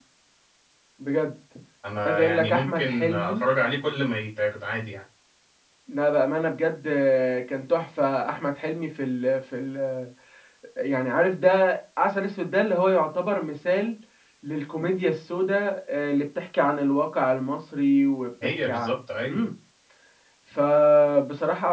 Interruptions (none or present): present